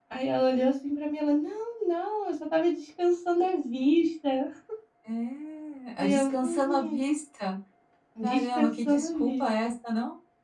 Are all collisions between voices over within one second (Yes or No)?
No